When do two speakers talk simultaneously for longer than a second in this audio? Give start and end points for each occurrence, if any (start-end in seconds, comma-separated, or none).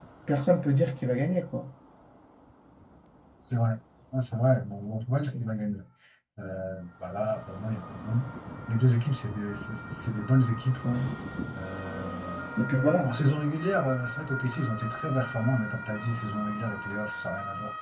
none